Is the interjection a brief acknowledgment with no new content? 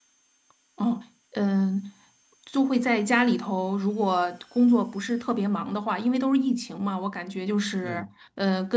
Yes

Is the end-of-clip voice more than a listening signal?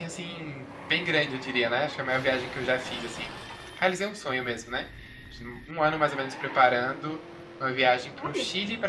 No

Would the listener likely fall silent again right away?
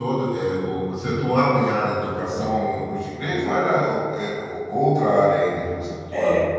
No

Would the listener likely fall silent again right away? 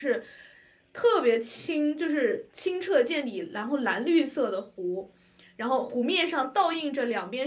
Yes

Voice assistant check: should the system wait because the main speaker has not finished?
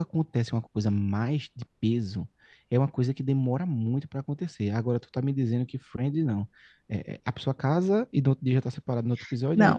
No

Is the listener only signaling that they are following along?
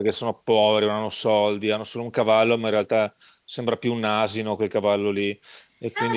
No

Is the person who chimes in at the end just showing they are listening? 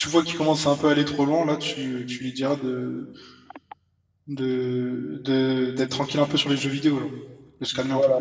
No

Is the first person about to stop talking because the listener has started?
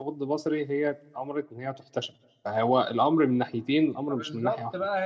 Yes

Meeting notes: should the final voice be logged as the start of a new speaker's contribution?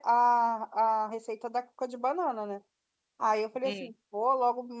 No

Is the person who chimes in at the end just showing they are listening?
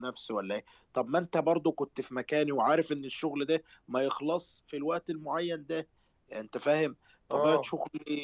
Yes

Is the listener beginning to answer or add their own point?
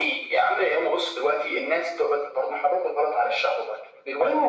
Yes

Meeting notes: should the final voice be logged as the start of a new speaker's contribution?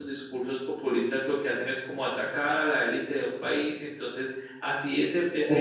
Yes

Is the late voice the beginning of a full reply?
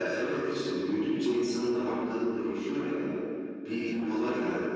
No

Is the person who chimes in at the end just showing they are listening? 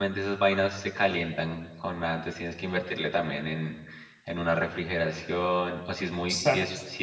Yes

